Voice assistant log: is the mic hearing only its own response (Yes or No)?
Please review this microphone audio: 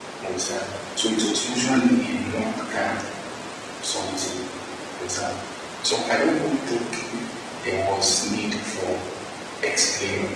Yes